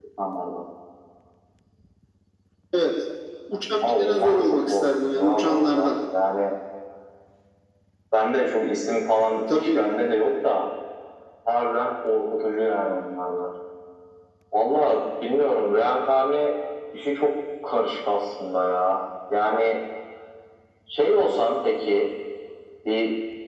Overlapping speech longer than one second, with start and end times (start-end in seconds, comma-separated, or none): 3.8-5.9